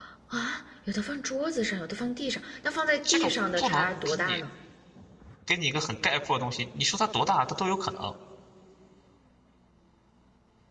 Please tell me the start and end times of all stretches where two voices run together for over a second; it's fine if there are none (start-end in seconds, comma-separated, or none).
3.1-4.4